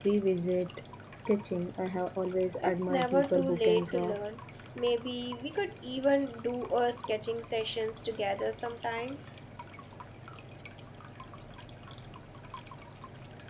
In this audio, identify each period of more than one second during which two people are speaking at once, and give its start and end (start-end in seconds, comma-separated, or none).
2.6-4.2